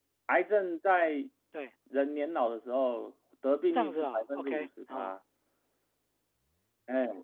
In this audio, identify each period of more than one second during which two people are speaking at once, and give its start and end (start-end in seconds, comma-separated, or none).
3.7-5.1